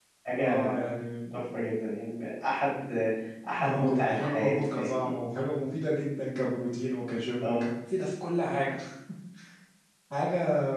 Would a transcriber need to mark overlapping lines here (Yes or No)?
Yes